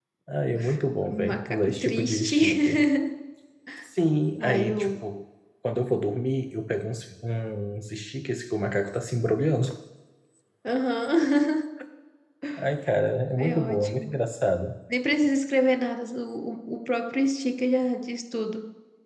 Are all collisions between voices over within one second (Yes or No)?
No